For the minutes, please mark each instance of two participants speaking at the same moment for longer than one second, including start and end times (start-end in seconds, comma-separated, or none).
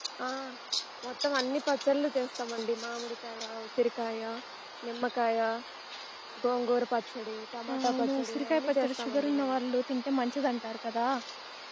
7.7-9.6